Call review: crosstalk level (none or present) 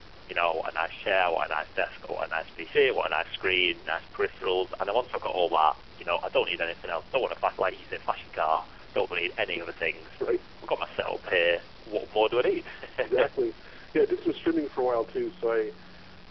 none